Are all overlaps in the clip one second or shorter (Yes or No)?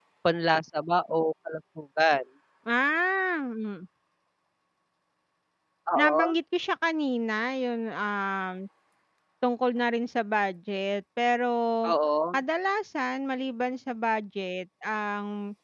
Yes